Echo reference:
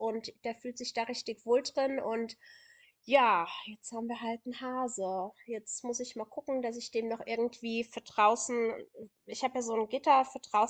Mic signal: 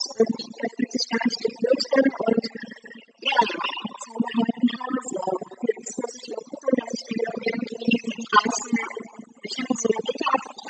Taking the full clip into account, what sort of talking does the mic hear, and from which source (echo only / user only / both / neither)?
echo only